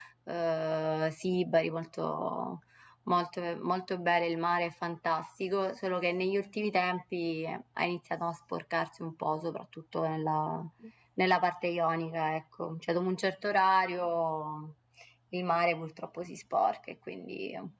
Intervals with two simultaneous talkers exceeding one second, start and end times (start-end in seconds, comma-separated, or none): none